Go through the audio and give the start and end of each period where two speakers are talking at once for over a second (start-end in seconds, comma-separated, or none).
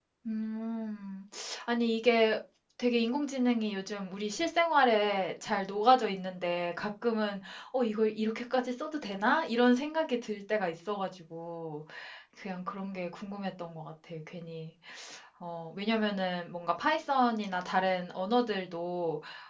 none